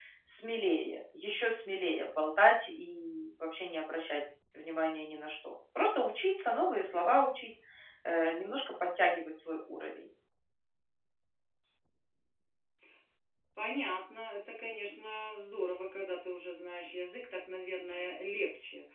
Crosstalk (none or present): none